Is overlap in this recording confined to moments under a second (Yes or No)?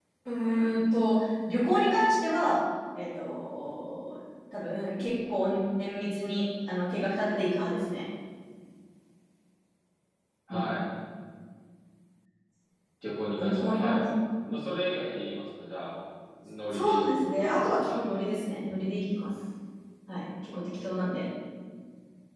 No